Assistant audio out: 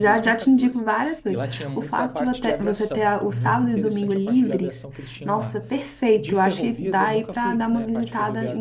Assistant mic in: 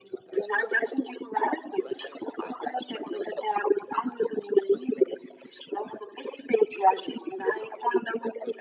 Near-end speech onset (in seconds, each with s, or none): none